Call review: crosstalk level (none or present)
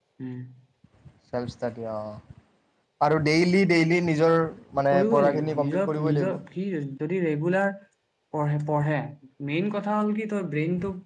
present